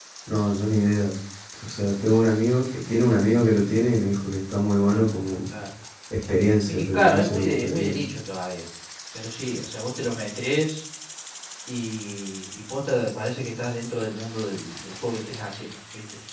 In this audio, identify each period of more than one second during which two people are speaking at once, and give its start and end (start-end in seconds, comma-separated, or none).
6.7-8.0